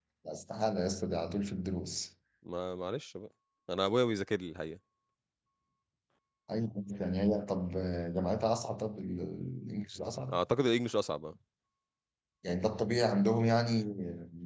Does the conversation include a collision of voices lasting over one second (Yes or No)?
No